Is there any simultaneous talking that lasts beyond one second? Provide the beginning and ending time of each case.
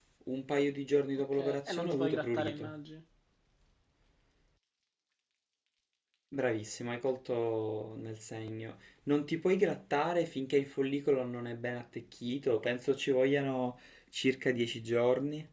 1.3-2.7

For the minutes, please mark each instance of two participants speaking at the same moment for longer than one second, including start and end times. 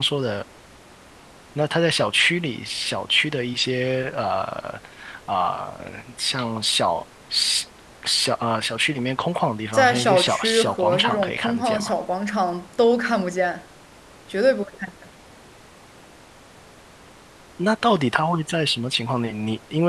9.7-11.9

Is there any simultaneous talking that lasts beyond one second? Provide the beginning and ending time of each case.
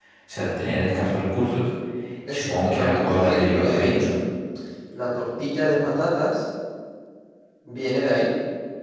2.3-4.1

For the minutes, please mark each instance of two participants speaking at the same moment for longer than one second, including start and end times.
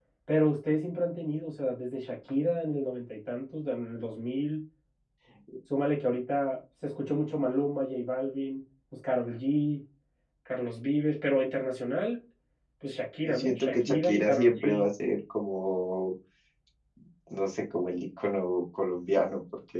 13.2-14.8

